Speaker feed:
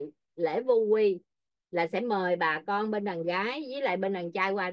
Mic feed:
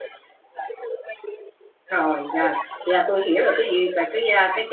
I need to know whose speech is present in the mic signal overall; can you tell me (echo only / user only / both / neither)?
both